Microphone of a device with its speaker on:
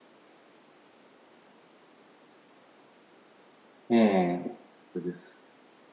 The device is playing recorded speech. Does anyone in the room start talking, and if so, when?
3.9 s

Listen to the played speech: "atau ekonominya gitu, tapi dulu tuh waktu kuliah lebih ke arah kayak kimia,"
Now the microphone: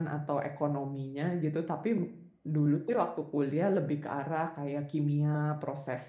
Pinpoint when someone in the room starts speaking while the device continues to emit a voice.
none

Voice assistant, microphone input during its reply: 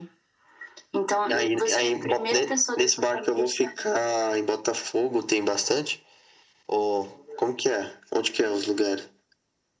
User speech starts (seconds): none

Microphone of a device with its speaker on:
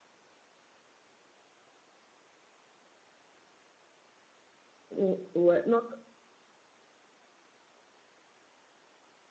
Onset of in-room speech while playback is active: 4.9 s

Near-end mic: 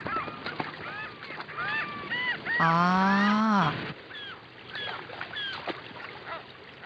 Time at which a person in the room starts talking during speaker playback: 2.6 s

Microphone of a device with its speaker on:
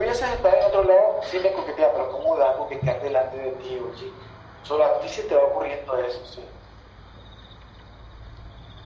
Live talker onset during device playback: none

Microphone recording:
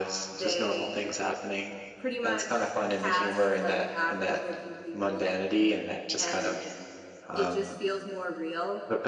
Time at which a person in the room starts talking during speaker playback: none

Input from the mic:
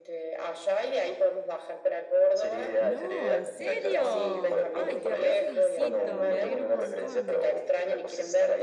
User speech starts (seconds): 2.8 s

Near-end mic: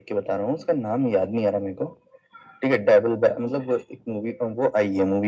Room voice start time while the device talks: none

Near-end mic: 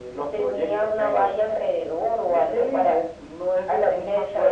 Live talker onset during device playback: none

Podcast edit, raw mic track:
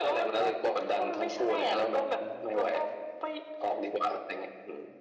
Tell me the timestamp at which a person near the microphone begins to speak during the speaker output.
none

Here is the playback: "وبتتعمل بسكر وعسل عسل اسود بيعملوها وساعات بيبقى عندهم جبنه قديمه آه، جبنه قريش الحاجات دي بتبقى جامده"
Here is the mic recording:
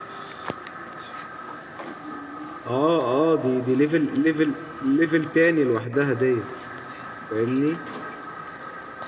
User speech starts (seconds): 2.6 s

